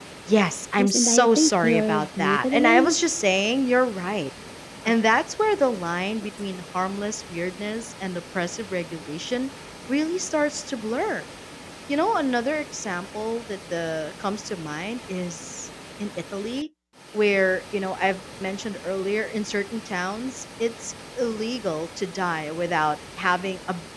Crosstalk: present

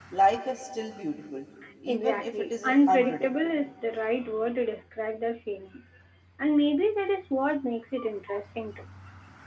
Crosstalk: present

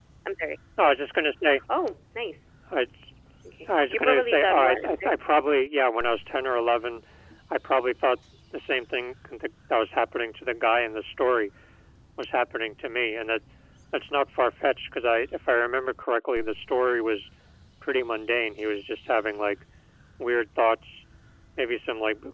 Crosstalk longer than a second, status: present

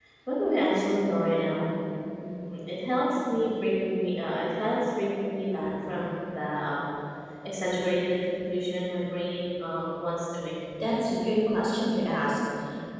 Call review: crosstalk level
none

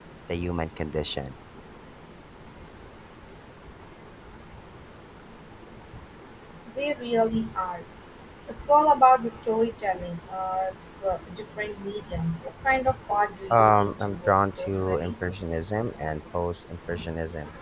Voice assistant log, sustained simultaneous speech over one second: present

